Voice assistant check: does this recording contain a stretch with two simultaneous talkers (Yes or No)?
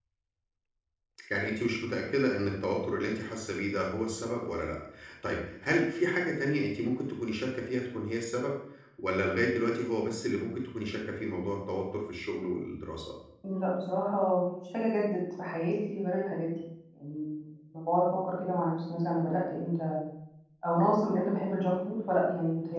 No